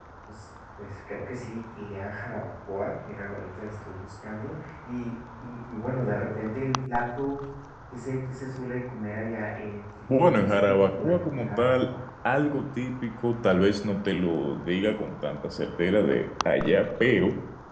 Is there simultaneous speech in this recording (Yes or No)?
Yes